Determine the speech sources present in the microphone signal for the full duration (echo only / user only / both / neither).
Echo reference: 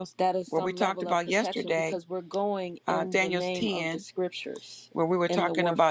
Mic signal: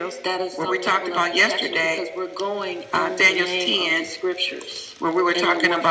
echo only